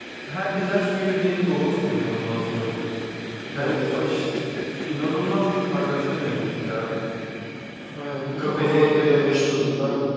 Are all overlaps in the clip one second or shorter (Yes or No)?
No